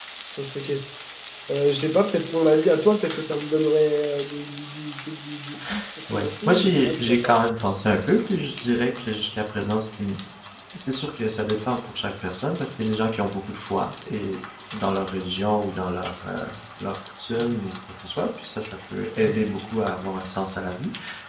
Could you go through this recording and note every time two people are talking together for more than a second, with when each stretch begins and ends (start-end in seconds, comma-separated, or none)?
6.1-7.4